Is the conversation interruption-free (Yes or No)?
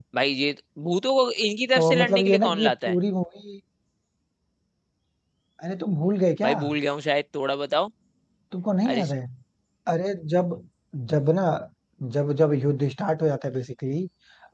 No